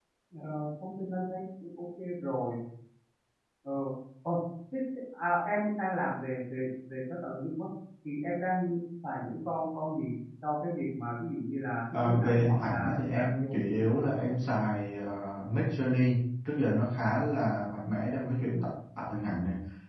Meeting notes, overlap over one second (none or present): present